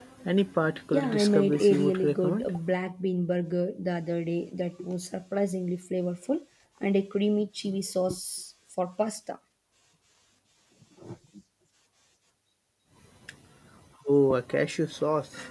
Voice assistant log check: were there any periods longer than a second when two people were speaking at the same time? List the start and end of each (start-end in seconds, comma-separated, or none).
0.9-2.5